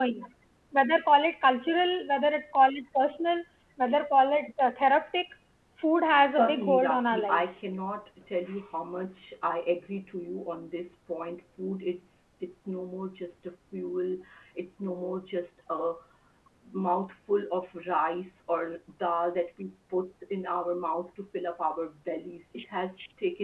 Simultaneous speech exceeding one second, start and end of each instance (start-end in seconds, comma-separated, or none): 6.2-7.5